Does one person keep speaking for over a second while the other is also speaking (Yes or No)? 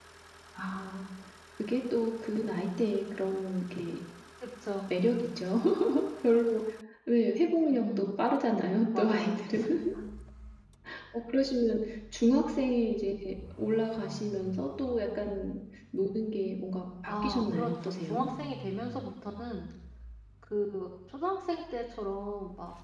Yes